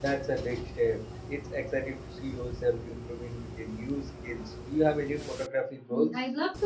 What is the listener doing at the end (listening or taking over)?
taking over